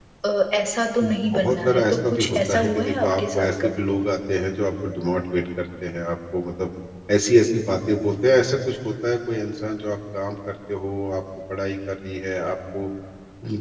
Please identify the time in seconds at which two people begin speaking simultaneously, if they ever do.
1.0 s

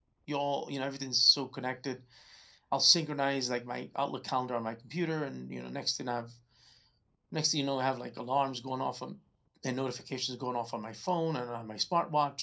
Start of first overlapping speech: none

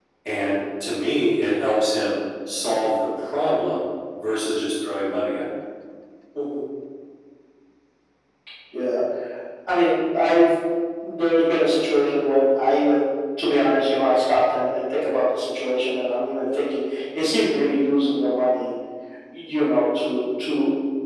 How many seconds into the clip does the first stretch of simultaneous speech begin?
none

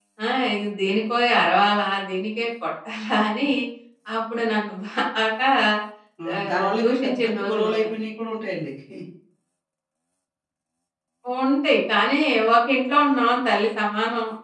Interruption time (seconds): 6.4 s

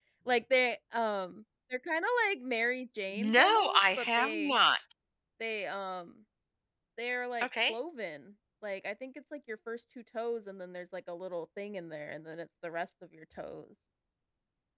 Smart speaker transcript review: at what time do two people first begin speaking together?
3.3 s

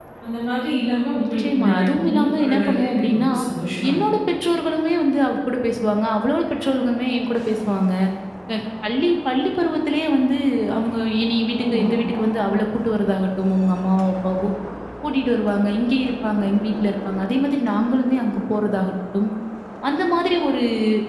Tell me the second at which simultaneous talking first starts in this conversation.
1.2 s

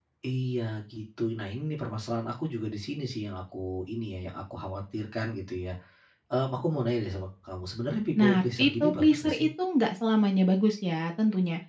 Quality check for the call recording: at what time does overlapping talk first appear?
8.2 s

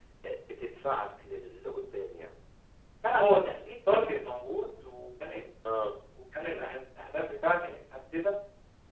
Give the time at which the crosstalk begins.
none

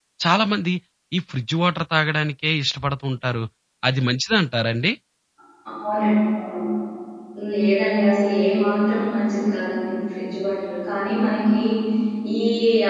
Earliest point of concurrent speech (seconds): none

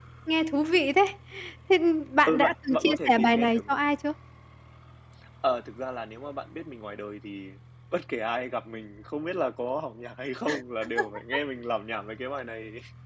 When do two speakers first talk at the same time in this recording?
2.3 s

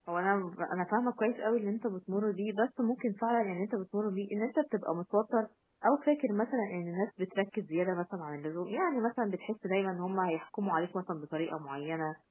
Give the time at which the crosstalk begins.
none

